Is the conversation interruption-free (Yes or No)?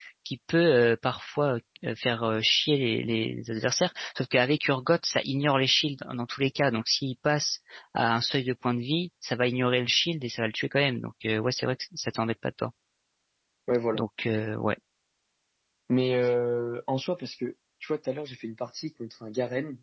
Yes